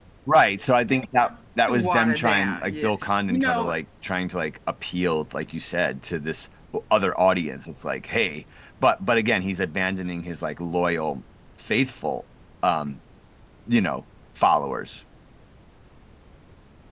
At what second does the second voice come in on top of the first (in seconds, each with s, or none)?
1.7 s